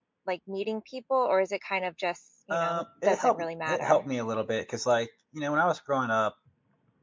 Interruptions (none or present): present